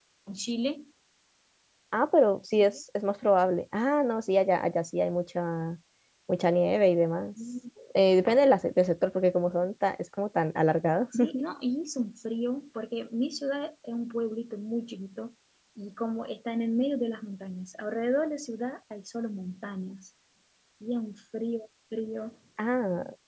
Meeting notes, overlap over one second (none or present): none